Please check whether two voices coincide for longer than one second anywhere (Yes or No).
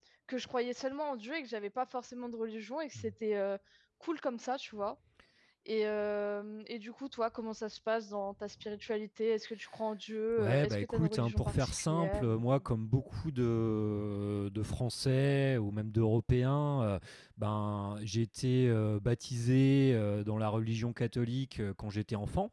Yes